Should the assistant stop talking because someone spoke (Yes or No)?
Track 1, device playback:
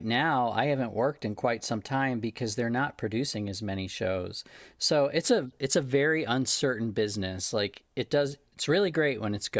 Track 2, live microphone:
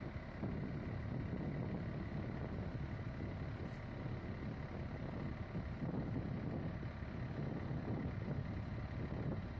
No